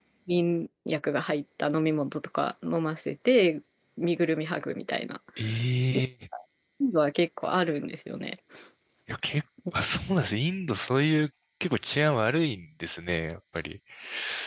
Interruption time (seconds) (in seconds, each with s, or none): none